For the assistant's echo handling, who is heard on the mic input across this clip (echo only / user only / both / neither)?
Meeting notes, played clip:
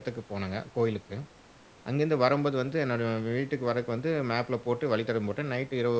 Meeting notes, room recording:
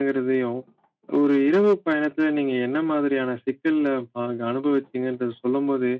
user only